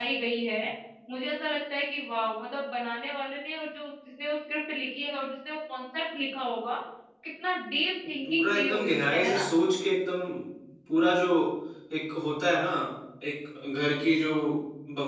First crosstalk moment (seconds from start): 8.3 s

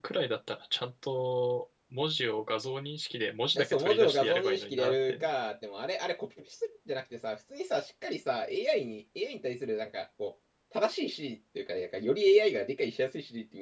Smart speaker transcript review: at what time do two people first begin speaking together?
3.5 s

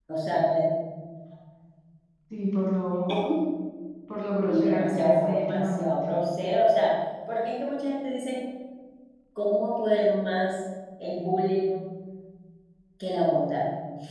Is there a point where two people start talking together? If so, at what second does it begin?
4.5 s

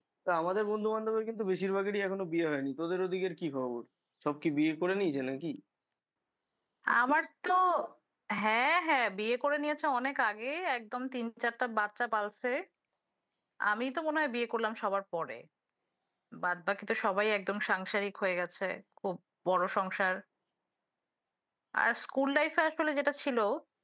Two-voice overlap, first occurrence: none

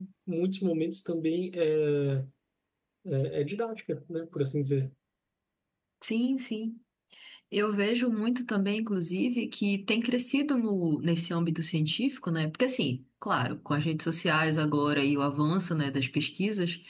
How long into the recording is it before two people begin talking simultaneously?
none

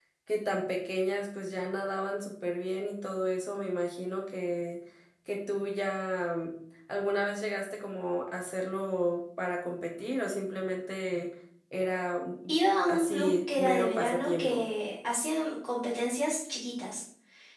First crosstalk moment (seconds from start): 12.9 s

